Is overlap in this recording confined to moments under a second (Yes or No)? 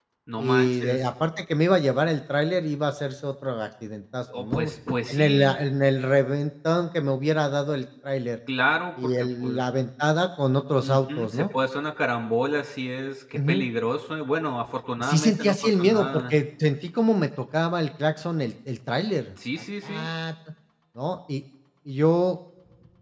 No